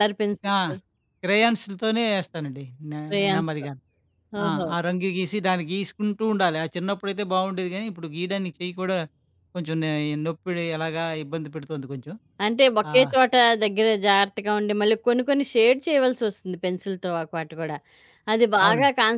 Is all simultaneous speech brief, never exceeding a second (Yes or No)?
Yes